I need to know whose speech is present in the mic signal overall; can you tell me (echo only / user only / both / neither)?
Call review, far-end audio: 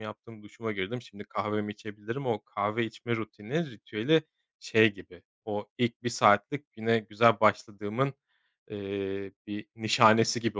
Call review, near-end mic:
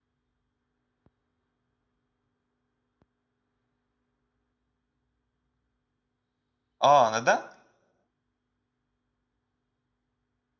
user only